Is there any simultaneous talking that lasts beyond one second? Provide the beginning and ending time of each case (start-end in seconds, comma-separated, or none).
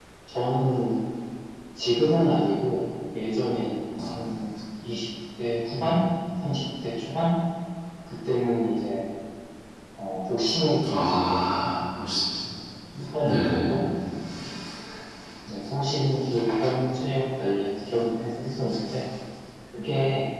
10.9-12.2